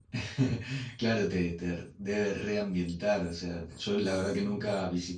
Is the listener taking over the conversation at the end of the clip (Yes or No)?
No